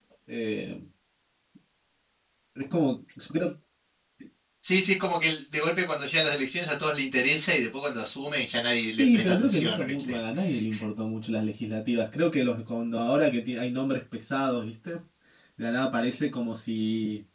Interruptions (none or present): present